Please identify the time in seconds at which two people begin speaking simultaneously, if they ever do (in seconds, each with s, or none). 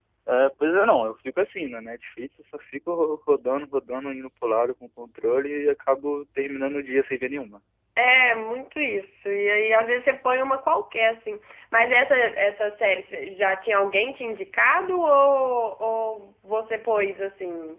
none